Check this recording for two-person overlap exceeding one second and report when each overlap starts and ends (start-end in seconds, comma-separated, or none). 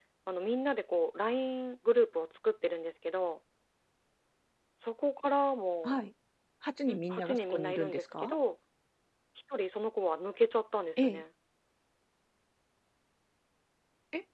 6.9-8.4